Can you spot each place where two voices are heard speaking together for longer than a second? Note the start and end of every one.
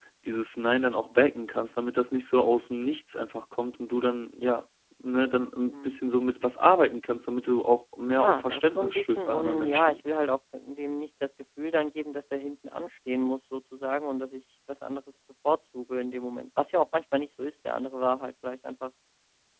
8.1-10.0

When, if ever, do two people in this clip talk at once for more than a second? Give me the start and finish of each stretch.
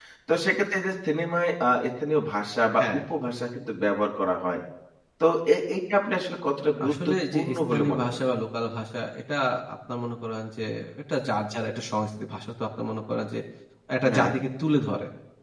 6.9-8.3

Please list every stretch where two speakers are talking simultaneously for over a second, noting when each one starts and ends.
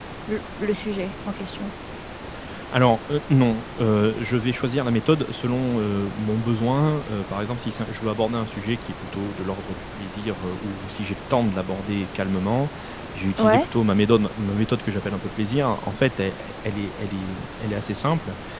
none

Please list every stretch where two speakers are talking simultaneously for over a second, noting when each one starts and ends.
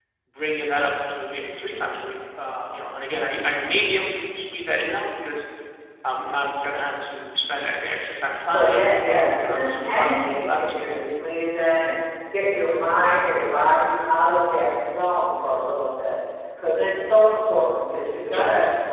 8.5-10.9

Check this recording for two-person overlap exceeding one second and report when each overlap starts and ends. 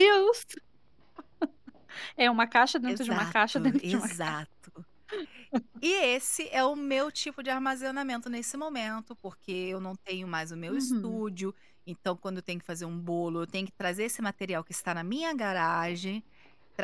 2.9-4.1

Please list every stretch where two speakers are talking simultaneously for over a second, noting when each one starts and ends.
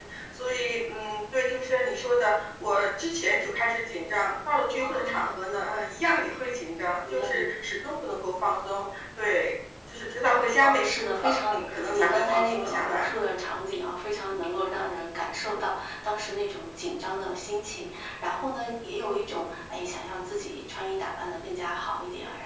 11.5-13.1

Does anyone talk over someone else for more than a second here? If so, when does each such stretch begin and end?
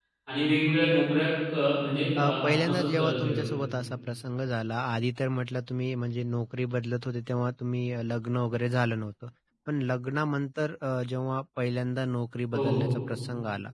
2.2-3.4

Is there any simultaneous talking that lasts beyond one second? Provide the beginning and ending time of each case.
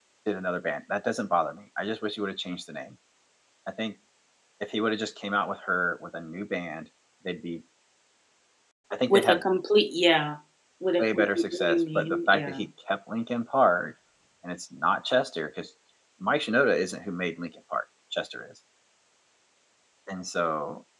11.0-12.6

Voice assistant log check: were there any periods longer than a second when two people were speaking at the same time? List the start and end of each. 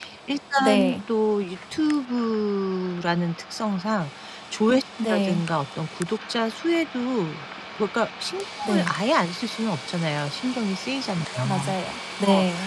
none

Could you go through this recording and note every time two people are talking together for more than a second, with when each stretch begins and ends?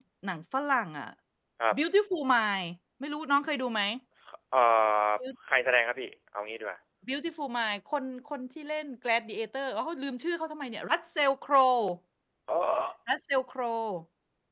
none

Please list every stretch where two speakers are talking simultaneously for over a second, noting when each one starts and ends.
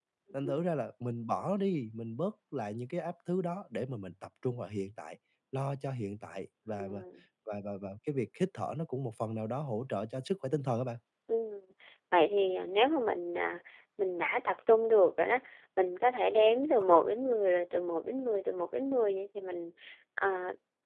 none

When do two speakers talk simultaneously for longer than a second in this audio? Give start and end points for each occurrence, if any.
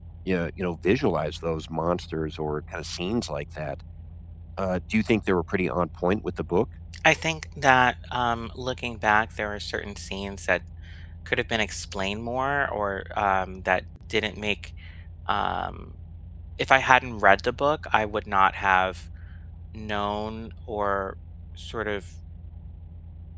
none

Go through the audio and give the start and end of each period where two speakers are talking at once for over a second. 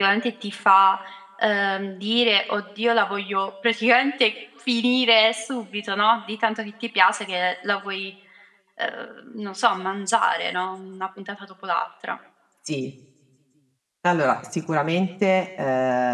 none

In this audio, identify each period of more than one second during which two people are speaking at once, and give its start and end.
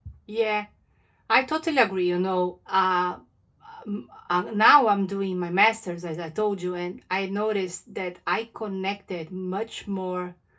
none

